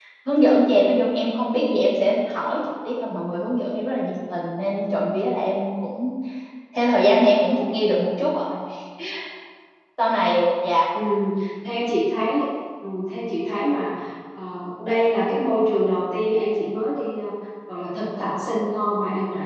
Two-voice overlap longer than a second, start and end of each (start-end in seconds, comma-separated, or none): none